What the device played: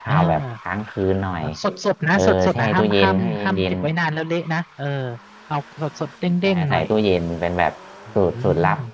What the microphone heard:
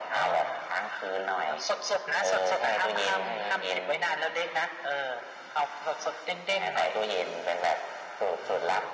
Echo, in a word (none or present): present